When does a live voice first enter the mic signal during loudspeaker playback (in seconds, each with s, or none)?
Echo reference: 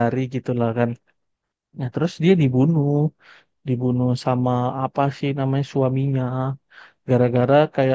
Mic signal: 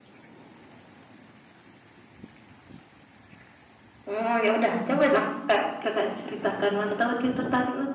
4.1 s